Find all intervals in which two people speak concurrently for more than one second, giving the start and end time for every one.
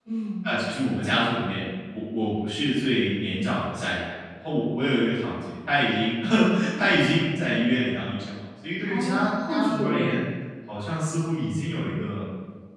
8.9-10.2

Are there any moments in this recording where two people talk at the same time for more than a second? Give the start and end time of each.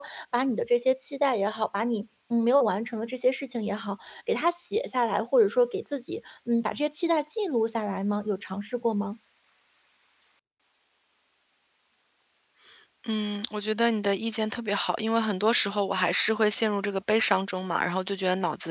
none

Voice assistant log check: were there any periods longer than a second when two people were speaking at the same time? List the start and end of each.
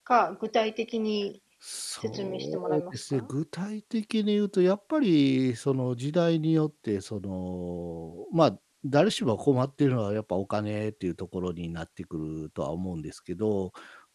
2.0-3.3

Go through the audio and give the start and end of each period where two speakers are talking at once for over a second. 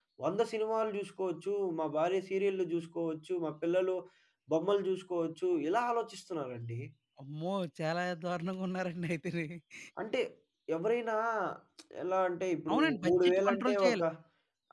12.7-14.0

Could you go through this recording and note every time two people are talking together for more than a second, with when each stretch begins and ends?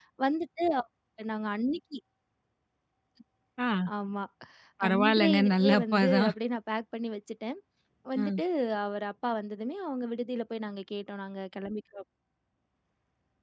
4.9-6.3

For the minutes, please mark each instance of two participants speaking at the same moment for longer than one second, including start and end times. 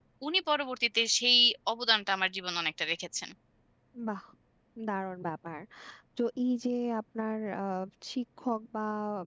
none

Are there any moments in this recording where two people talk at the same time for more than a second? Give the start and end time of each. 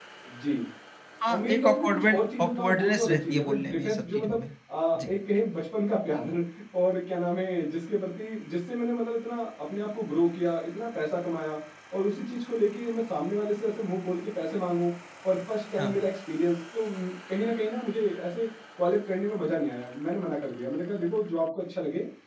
1.3-4.4

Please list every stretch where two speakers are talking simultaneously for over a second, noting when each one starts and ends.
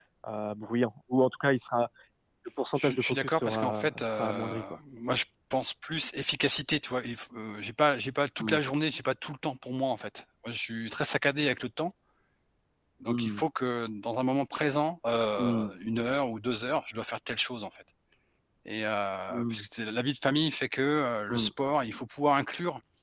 2.8-4.6

